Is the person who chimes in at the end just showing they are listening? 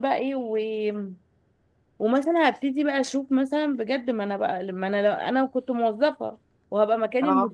Yes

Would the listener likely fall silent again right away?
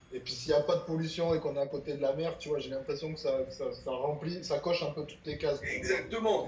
No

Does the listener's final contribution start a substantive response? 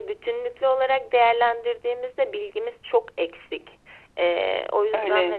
Yes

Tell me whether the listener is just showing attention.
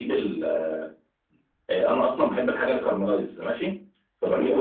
No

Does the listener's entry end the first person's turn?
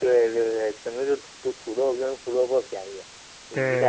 No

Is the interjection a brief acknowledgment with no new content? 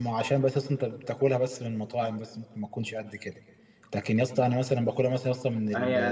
No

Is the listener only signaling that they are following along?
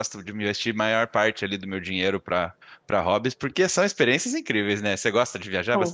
No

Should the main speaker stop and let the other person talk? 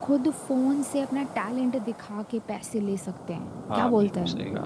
Yes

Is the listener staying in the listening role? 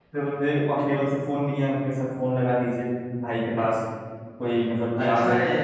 No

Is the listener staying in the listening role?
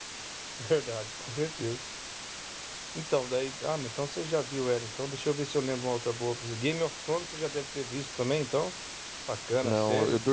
No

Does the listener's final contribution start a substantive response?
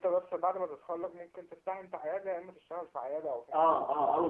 Yes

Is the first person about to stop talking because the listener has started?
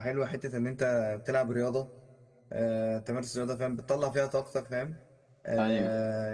No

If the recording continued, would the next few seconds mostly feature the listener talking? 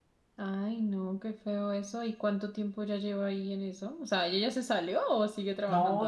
Yes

